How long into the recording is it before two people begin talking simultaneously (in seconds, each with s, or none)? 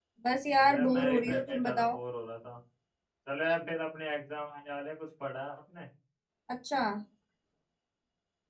0.7 s